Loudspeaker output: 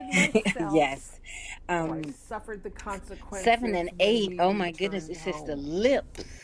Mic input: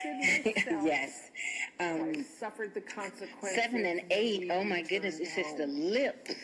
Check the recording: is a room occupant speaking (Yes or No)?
No